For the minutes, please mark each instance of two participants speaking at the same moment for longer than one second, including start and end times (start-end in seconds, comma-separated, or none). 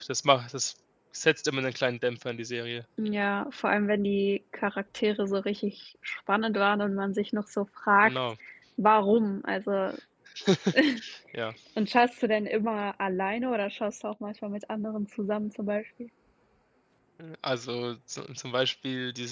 none